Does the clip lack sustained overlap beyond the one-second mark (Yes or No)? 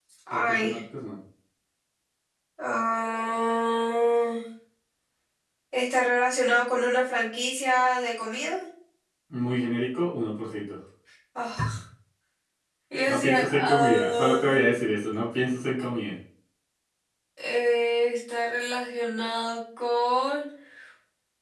No